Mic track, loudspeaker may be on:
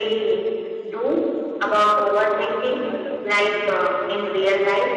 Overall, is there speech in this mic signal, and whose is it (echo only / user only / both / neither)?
both